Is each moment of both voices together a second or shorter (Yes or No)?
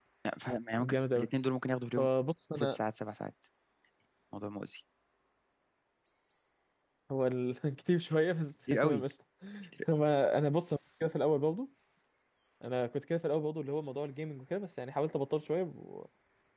Yes